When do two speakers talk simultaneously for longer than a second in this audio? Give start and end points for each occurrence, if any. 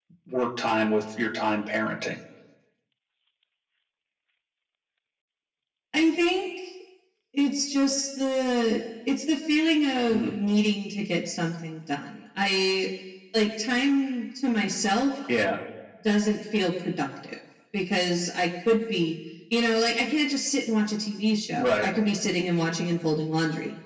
none

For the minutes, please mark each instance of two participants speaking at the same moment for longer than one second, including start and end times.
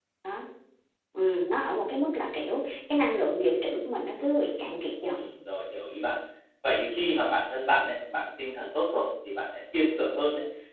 none

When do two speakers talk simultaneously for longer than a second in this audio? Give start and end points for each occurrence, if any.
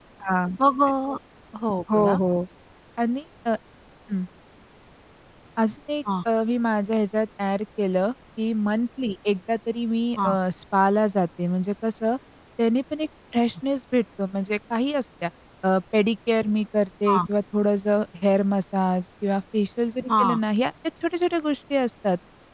none

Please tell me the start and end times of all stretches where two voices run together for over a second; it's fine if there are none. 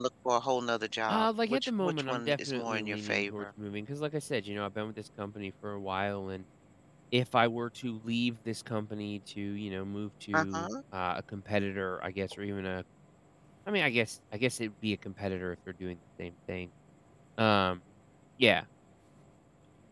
1.1-3.5

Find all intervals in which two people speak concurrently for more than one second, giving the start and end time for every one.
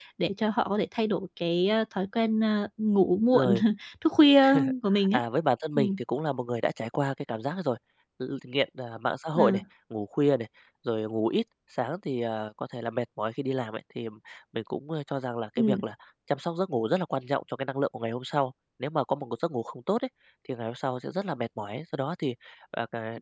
none

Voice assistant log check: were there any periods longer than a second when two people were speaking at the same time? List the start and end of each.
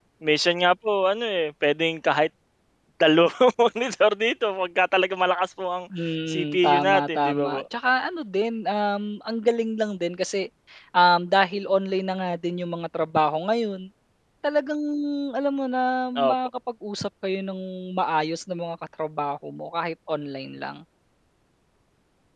6.3-7.6

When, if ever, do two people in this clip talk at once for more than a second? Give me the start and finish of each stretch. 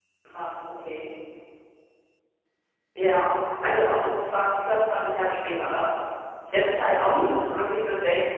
6.5-7.7

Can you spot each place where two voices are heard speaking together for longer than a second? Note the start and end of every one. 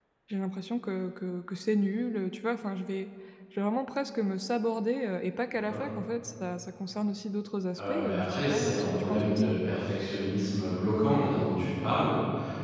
7.8-9.5

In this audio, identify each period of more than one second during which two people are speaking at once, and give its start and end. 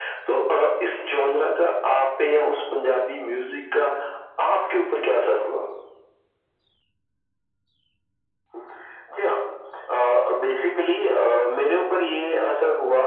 none

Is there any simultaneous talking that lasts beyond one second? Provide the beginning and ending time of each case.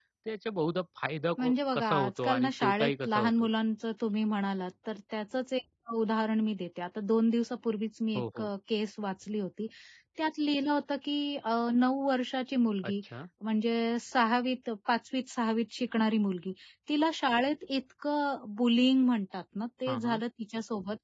1.4-3.5

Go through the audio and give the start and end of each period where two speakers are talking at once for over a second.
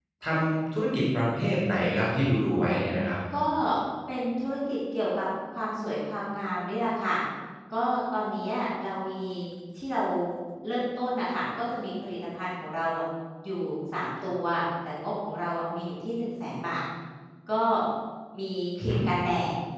none

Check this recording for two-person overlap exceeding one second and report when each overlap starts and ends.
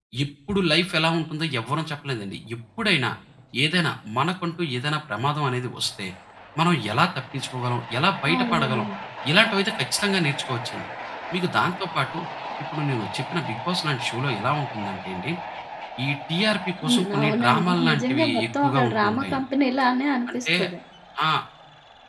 16.9-19.4

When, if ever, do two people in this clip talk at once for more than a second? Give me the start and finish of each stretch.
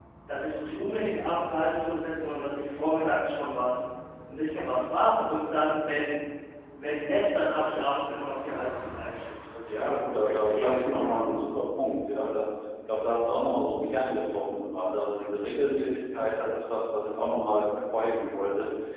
9.7-11.4

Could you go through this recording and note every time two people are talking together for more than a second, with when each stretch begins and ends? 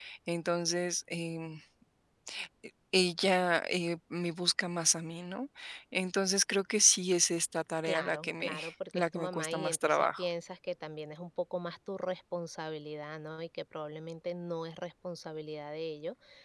7.8-10.3

